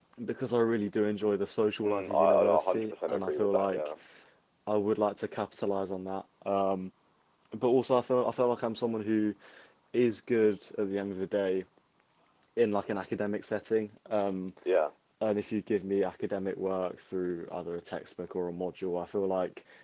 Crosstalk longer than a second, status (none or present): present